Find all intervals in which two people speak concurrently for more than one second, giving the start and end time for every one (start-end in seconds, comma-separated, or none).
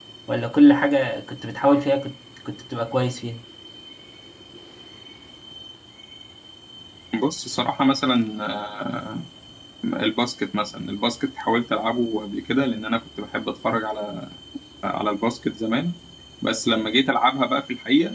none